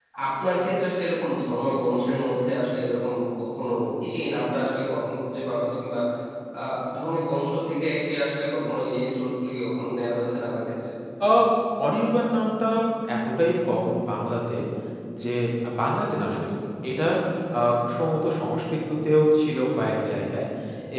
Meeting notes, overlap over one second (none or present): none